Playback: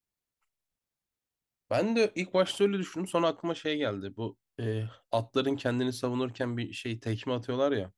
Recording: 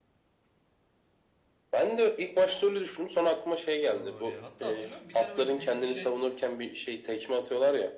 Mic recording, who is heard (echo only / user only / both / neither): both